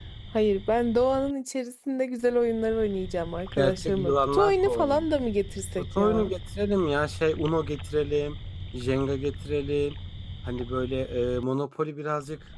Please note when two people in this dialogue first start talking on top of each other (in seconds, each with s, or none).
3.6 s